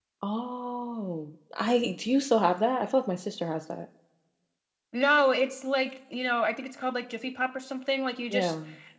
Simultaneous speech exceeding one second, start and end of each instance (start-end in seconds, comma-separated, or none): none